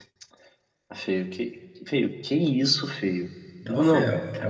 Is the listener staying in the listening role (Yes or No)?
No